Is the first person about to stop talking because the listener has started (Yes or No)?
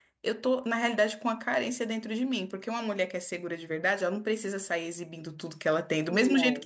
No